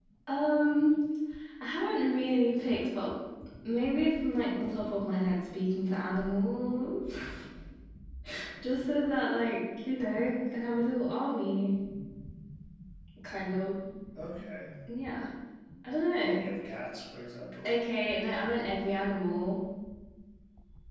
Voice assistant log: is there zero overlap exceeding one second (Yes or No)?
Yes